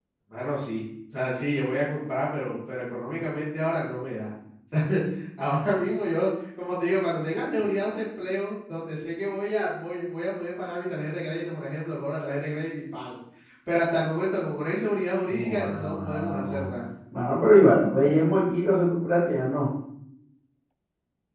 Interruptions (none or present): present